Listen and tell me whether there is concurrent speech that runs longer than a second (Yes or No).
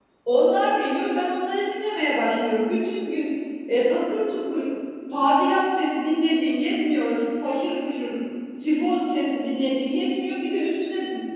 No